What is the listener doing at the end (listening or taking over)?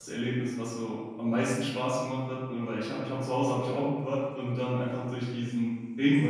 listening